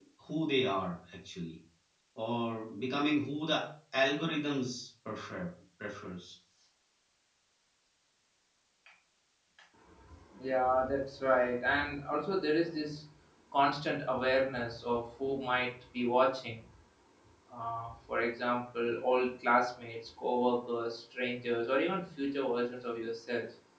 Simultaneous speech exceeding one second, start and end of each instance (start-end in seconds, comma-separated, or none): none